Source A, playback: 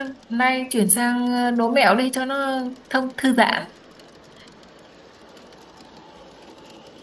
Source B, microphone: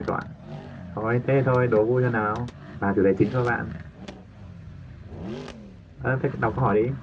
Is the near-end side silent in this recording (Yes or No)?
No